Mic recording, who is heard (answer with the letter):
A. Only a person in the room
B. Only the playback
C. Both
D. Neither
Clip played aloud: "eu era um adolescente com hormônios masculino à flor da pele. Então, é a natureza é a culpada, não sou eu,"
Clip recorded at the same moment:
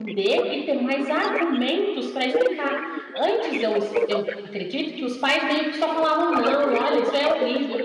C